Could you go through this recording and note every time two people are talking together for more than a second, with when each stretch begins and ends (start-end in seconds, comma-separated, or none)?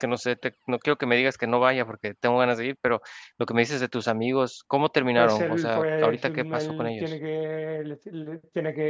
5.2-7.1